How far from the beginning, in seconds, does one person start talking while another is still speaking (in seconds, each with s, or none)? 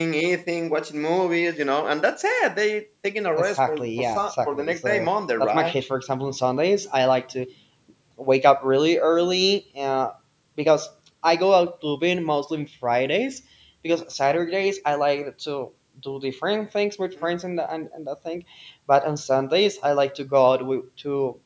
3.4 s